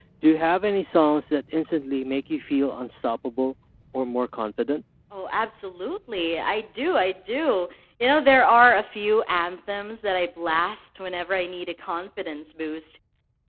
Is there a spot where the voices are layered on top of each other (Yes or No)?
No